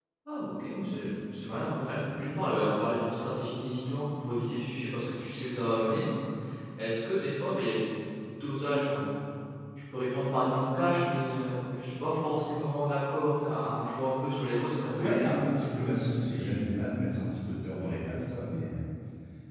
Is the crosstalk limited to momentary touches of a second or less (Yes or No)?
Yes